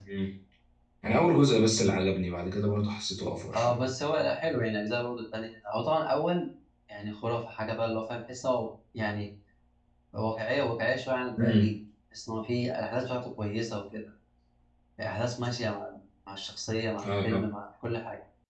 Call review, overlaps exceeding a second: none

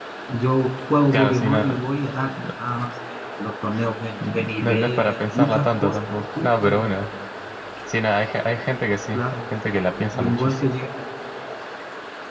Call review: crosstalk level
present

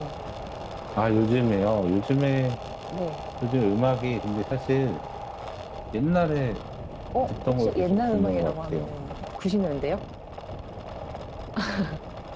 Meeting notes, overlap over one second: present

